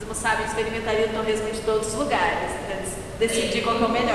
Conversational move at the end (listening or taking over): taking over